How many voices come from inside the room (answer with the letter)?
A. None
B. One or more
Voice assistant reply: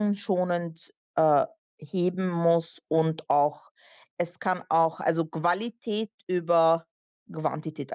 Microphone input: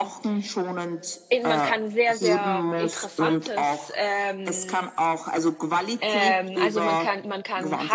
B